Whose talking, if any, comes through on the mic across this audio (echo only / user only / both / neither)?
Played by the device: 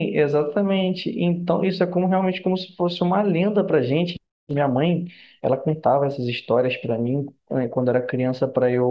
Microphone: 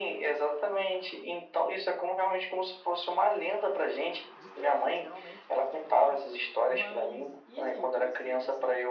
both